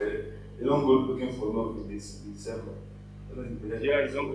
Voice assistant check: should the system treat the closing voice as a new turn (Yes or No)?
Yes